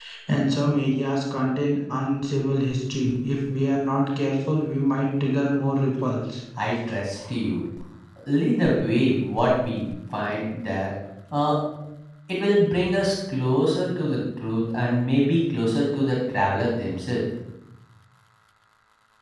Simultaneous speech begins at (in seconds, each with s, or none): none